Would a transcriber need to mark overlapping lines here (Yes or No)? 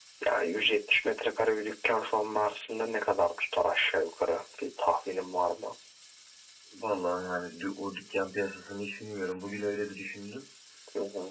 No